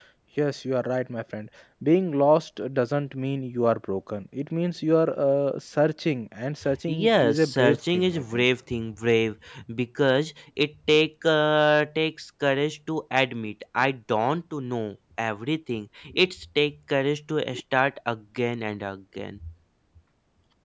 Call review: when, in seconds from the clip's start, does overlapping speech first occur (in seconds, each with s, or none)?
6.6 s